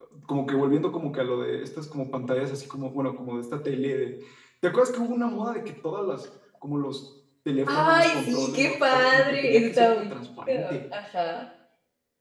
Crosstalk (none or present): present